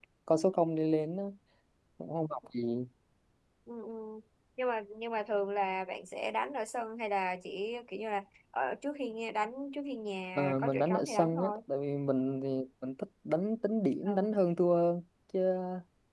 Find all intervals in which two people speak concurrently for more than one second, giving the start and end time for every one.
10.4-11.6

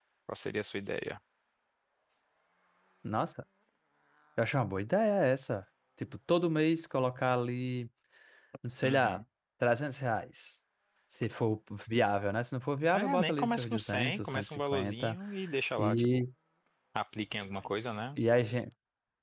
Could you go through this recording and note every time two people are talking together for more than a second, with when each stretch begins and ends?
12.9-15.2

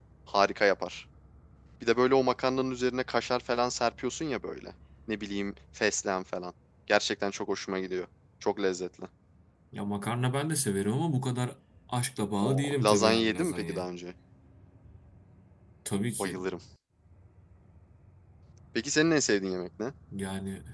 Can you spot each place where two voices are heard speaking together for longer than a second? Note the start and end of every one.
12.4-13.8

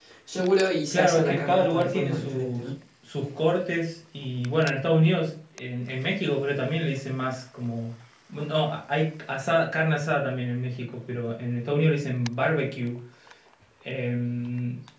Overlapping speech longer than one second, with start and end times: 0.9-2.6

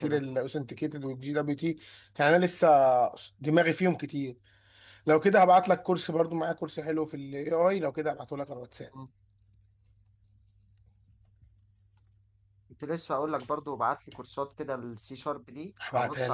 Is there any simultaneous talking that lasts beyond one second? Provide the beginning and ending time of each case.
none

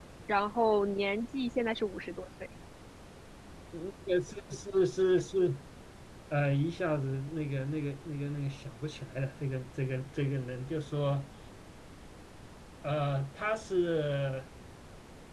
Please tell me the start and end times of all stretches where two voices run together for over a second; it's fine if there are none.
none

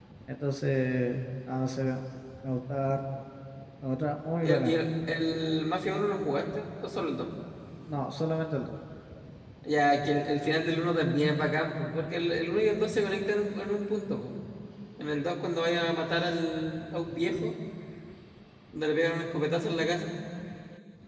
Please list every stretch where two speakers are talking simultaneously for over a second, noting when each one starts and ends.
none

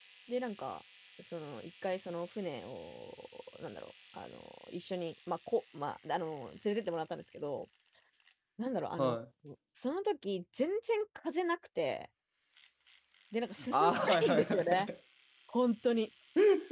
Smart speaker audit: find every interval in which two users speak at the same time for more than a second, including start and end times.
13.7-14.9

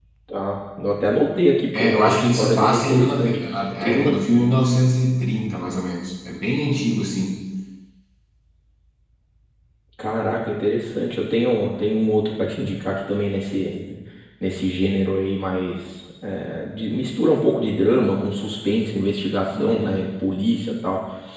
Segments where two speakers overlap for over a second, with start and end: 1.7-3.4

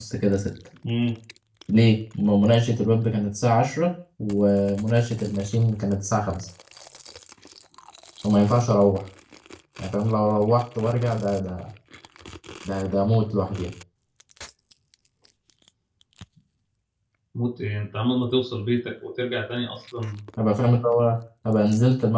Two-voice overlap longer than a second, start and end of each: none

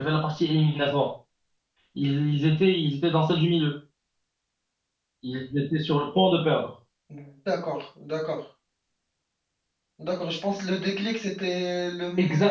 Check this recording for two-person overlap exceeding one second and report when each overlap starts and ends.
none

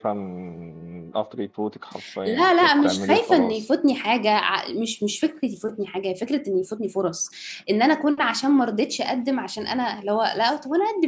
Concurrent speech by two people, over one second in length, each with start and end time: 2.2-3.6

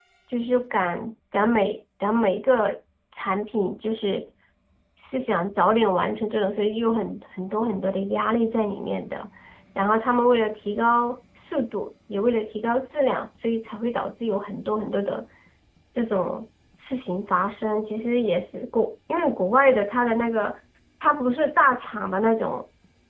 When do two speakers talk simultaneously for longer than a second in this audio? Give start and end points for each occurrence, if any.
none

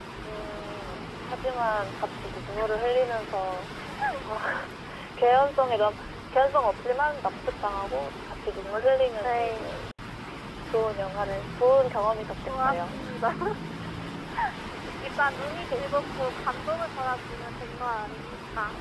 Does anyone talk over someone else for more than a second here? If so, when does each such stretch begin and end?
none

